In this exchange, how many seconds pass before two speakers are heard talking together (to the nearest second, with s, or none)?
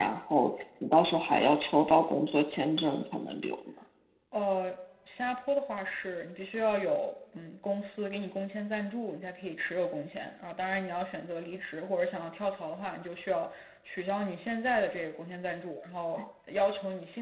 none